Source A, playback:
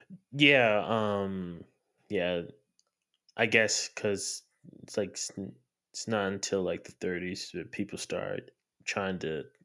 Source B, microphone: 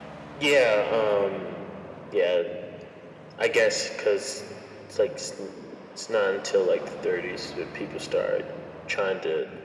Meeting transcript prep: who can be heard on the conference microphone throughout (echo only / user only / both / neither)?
echo only